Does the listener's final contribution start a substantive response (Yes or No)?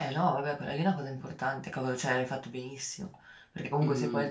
No